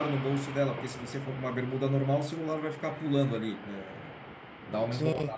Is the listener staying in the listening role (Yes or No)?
Yes